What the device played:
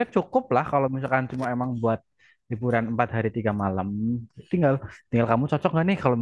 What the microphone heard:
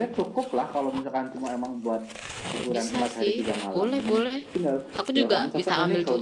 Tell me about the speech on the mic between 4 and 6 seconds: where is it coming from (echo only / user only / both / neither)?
both